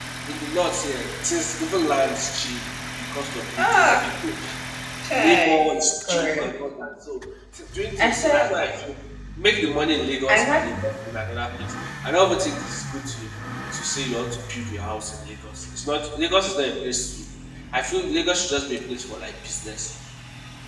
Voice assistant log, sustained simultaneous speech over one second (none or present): none